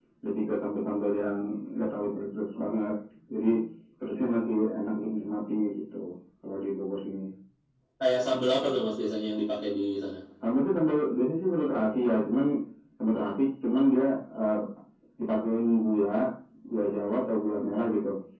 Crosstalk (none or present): none